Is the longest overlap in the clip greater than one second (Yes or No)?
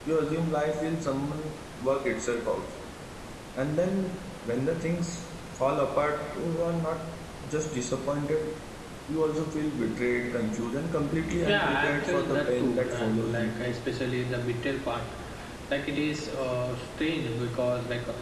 Yes